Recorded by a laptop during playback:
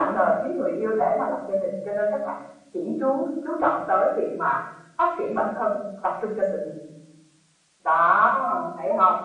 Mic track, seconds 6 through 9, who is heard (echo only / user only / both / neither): echo only